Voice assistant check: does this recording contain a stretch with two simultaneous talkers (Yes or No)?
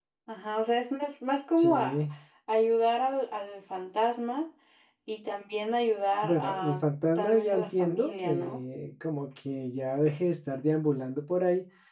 Yes